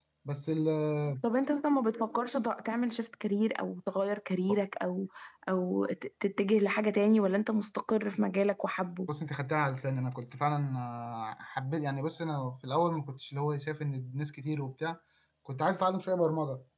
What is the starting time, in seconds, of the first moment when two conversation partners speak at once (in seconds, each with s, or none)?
none